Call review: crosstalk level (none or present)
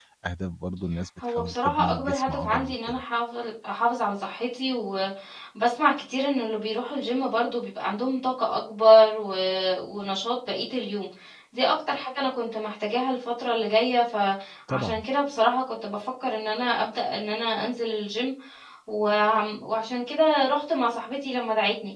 present